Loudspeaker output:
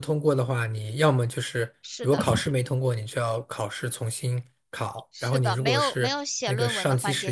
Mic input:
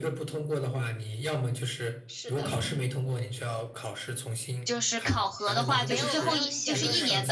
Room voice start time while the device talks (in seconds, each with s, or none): 4.6 s